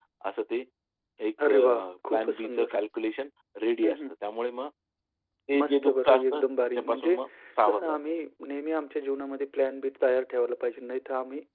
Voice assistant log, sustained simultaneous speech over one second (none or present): present